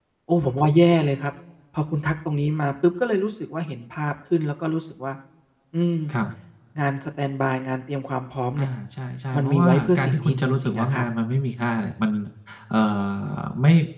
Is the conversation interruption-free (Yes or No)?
No